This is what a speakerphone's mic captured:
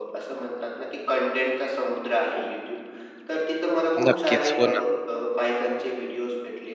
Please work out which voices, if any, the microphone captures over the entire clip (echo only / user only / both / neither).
both